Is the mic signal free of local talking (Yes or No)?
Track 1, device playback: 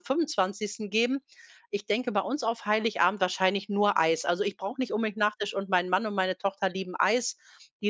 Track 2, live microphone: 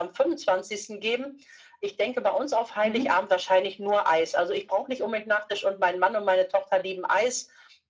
No